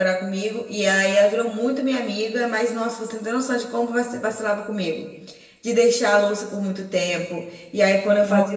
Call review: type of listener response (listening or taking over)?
listening